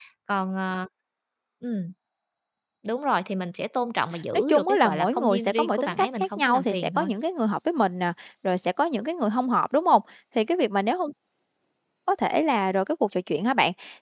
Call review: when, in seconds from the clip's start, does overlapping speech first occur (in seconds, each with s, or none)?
4.3 s